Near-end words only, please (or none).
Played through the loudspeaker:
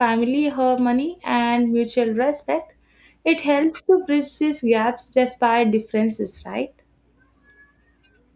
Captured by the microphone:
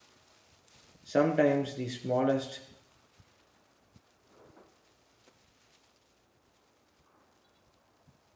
Sometimes the smallest